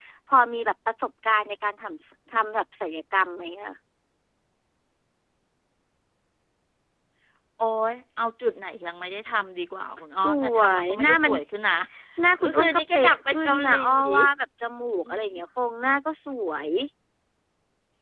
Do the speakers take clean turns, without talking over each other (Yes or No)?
No